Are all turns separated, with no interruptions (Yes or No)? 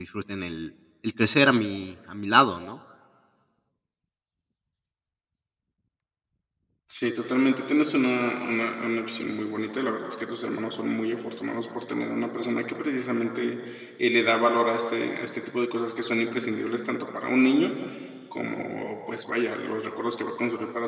Yes